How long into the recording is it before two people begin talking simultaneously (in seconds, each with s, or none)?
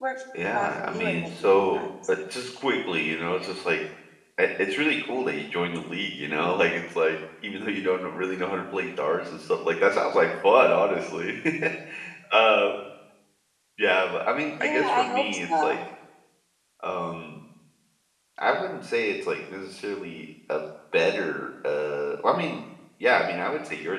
0.5 s